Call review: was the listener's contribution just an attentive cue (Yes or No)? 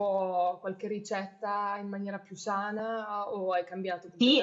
No